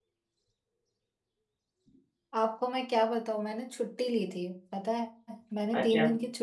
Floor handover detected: No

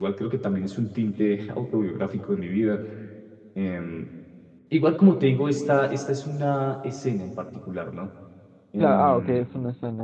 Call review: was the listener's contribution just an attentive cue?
No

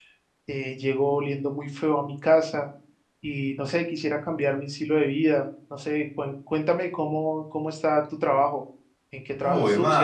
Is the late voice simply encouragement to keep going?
No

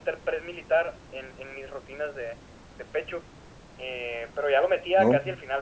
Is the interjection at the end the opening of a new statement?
No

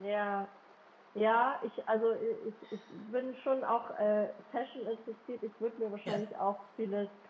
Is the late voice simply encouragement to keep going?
Yes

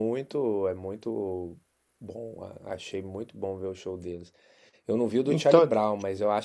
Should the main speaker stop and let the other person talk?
No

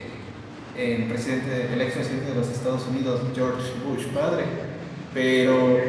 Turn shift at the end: No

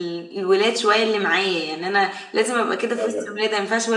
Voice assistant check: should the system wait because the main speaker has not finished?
Yes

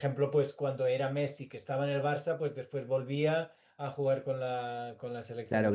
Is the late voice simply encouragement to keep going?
No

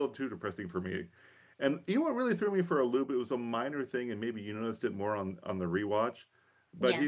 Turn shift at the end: No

